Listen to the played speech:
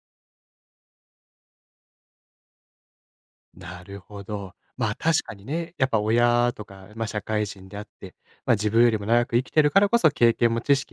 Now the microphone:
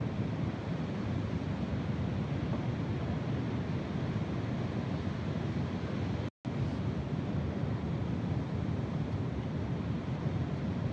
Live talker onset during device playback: none

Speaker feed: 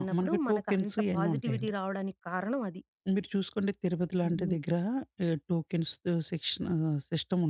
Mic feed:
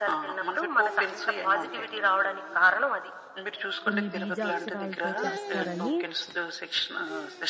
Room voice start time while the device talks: 4 s

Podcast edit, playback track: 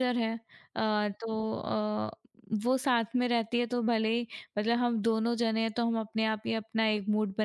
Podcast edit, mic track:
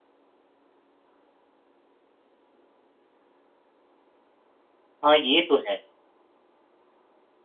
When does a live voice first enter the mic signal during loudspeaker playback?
5 s

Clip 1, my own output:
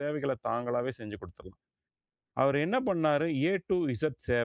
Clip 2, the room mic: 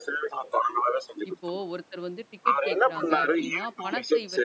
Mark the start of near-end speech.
1 s

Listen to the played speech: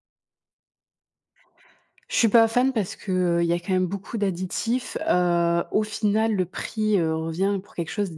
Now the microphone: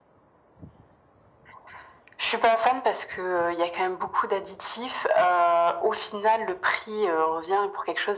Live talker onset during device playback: none

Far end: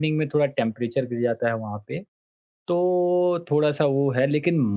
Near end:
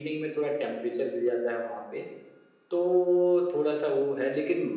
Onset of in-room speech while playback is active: none

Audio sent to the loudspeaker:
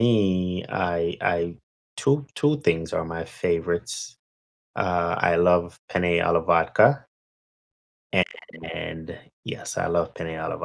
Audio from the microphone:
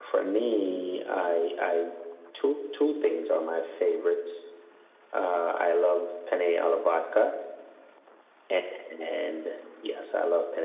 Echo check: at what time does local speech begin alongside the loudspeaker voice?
none

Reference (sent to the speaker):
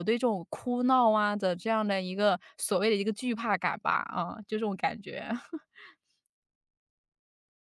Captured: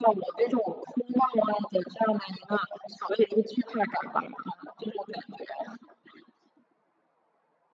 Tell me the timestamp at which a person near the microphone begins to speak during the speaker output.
none

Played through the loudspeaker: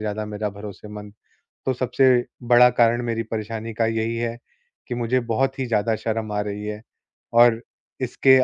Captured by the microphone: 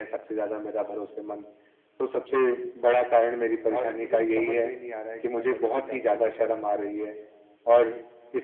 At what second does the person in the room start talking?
4 s

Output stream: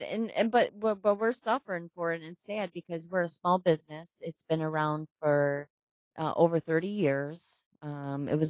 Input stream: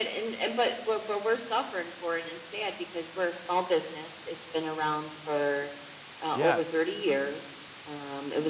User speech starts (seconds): 6 s

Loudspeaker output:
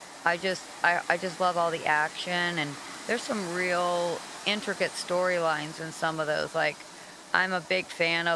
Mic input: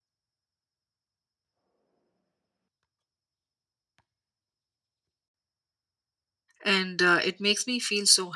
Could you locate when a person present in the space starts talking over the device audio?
7 s

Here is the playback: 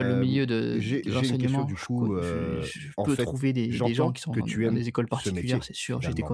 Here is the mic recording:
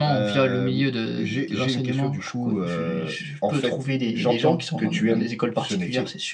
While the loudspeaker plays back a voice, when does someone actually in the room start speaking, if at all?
none

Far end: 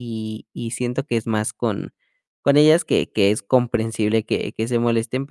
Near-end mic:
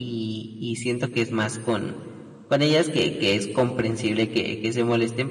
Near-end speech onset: none

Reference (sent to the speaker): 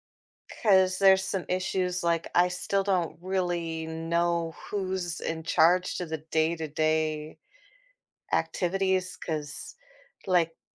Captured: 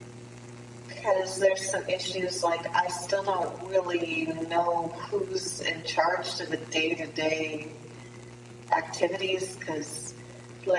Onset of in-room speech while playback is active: none

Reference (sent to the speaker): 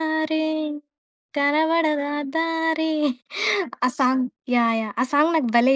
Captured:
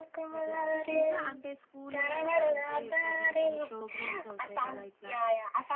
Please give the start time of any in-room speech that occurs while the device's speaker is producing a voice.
0 s

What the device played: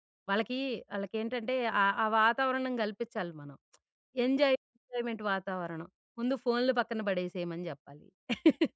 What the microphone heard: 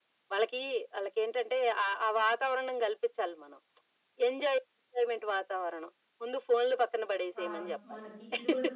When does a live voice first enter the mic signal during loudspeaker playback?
7 s

